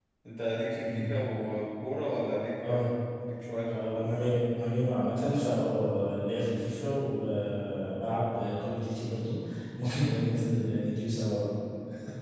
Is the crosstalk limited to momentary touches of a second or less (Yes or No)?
Yes